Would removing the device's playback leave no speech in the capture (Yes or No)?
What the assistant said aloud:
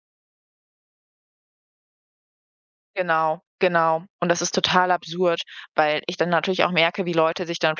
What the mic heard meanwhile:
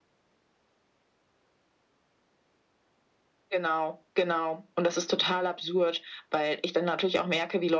Yes